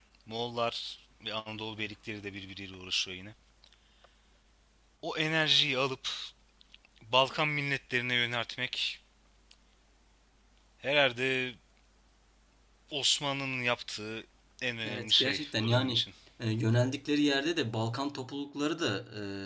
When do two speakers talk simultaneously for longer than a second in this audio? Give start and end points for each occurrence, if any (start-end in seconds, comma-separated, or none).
14.8-16.0